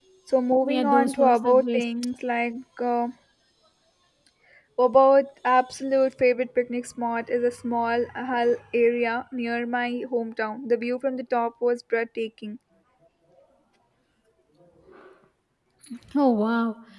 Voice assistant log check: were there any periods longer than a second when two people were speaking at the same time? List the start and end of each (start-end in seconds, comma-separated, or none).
0.6-1.8